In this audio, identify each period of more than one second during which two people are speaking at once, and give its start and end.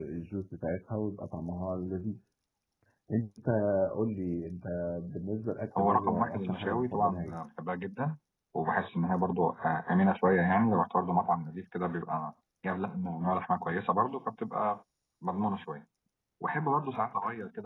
5.8-7.4

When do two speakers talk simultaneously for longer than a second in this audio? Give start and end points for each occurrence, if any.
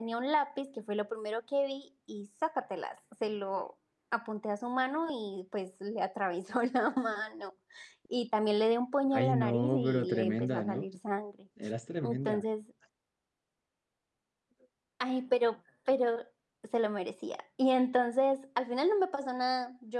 9.1-10.8

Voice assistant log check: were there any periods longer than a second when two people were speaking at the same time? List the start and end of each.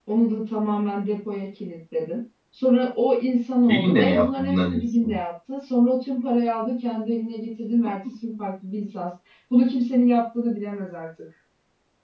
3.7-5.1

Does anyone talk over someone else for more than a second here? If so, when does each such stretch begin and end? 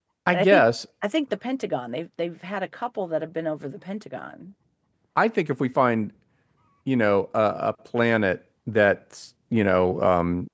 none

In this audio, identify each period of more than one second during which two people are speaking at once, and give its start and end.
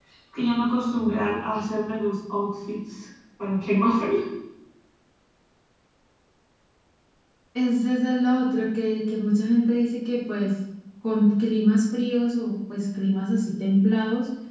none

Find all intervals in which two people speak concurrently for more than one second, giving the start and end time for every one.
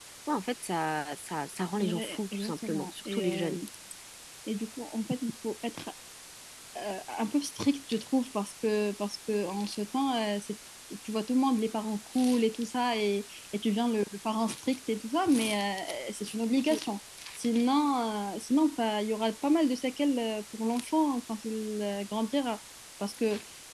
1.8-3.5

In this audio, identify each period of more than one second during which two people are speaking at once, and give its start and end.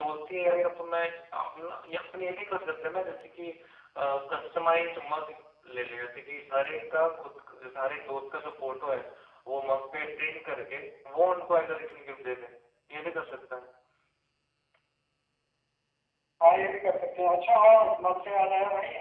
none

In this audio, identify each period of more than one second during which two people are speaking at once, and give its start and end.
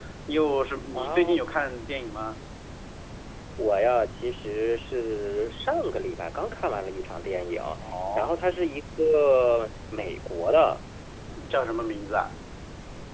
none

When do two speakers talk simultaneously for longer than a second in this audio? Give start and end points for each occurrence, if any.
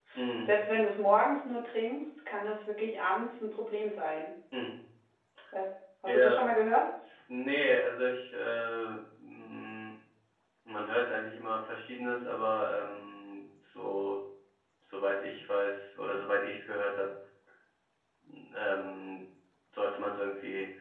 none

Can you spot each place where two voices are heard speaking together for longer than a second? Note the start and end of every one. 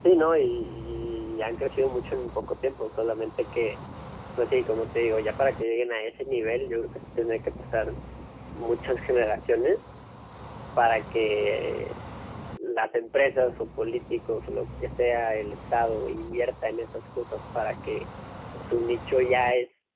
none

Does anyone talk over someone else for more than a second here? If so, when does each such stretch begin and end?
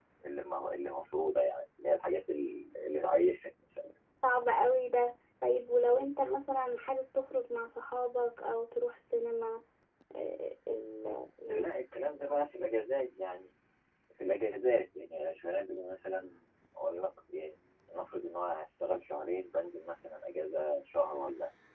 none

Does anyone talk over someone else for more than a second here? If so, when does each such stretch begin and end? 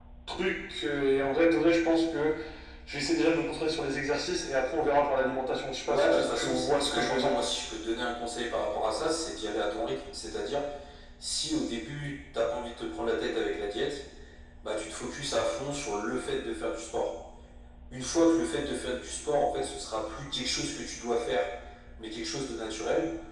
5.9-7.4

